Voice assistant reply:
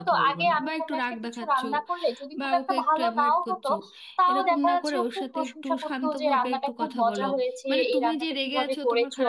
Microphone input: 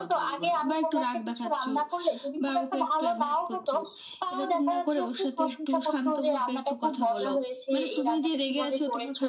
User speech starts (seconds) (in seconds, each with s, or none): none